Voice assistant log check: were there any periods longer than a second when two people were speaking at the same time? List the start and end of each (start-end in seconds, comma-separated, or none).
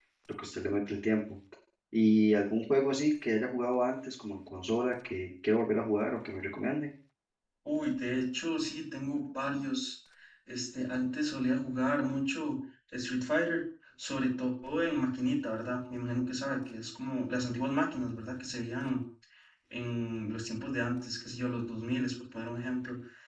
none